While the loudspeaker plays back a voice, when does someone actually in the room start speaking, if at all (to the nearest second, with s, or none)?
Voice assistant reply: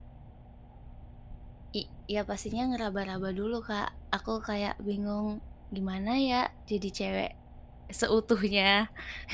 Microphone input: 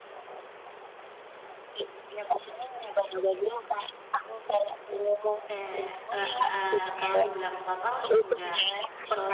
5 s